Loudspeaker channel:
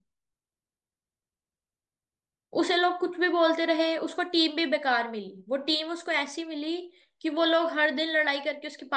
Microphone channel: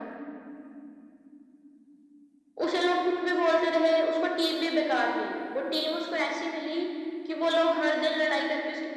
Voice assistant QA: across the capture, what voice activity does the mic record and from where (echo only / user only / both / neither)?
echo only